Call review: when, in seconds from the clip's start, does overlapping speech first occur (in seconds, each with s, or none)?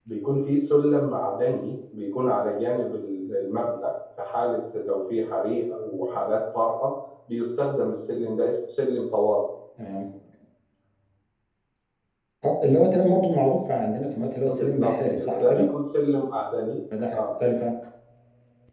14.5 s